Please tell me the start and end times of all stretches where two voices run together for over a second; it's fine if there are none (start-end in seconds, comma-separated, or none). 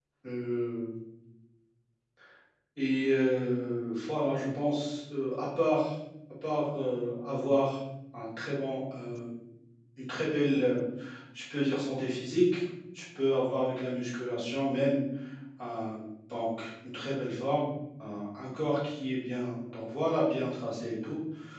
none